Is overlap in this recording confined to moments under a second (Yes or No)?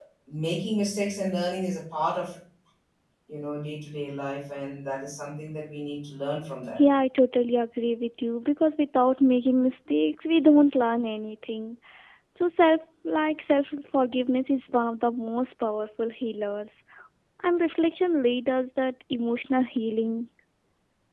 Yes